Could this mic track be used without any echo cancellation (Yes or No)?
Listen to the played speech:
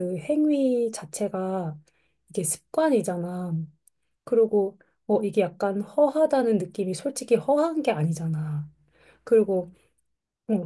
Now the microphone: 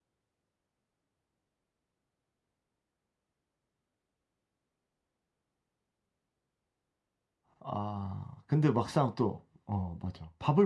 Yes